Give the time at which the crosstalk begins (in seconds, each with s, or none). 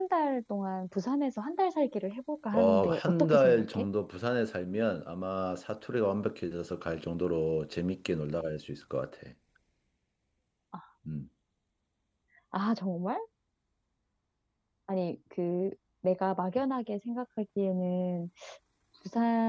2.5 s